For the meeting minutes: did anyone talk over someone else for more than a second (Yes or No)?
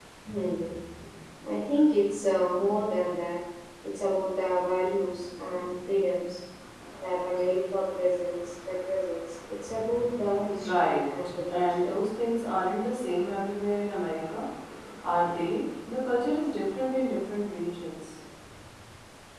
Yes